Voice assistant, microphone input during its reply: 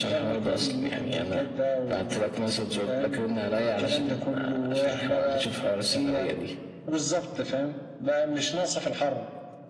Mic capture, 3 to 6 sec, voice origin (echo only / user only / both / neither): echo only